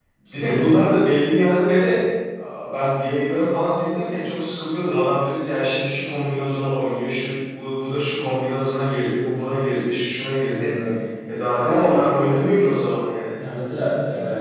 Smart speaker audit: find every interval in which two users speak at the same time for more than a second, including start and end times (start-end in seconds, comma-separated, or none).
none